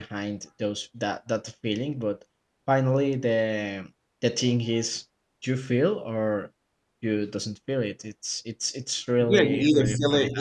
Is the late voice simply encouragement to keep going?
No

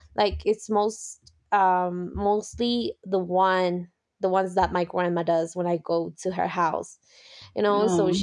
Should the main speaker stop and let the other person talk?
No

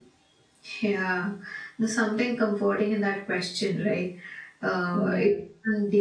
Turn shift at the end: No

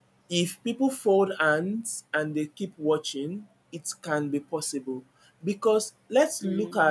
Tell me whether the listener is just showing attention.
No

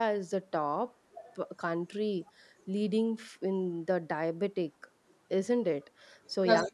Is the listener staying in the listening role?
Yes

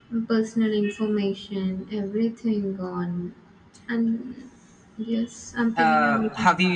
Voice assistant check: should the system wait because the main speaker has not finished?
No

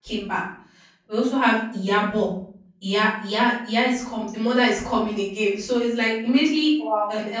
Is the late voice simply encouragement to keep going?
Yes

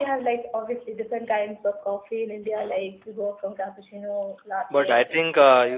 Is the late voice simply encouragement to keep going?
No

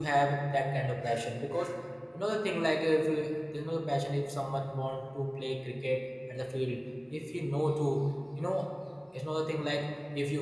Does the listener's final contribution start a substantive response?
No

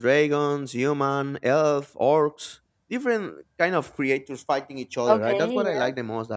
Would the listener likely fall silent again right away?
Yes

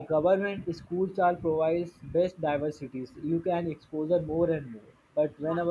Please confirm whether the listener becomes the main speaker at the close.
No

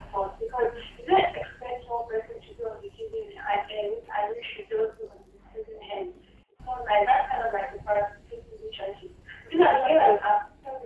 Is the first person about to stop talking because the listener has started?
No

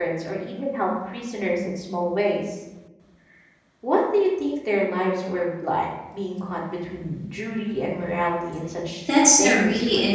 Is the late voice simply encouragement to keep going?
No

